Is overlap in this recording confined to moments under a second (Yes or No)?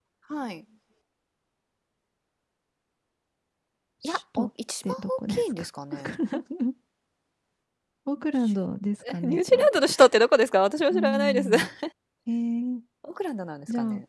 No